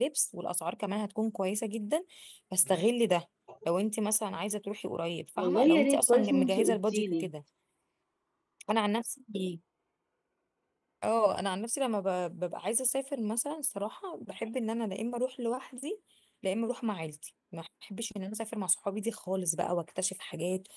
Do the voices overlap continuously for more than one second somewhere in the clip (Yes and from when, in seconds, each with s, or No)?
Yes, from 5.4 s